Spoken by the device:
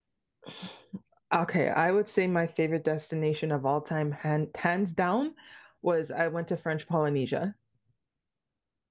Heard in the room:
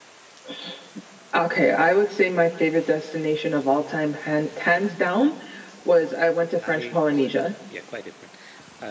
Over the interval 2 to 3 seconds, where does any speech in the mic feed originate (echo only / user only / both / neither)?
echo only